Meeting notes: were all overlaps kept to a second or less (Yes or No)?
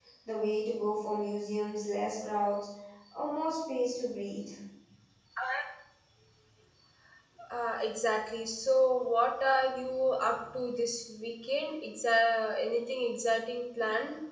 Yes